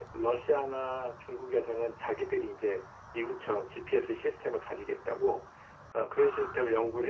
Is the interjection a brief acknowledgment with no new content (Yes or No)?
Yes